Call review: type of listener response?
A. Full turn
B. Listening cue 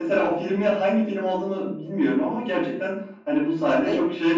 B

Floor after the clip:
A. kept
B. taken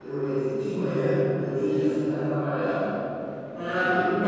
B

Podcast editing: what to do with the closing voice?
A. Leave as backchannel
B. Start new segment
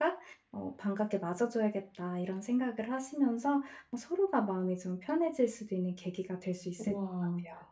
B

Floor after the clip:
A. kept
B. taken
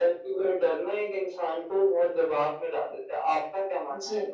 B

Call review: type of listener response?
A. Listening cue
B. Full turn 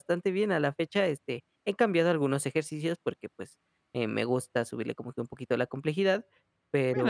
B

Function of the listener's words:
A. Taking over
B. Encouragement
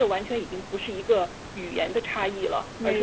B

